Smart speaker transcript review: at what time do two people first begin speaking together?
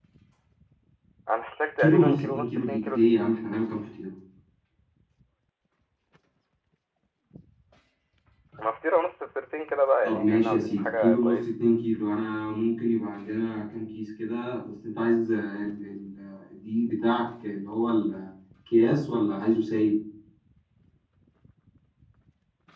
1.8 s

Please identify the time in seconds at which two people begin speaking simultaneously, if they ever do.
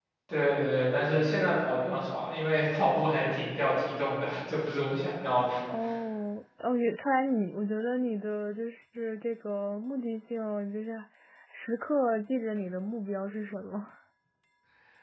none

